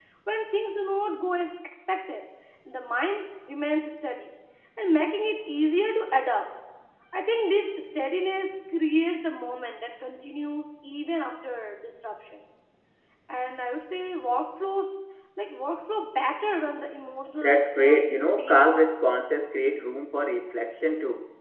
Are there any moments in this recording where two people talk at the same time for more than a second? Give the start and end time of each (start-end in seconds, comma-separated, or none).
17.4-19.0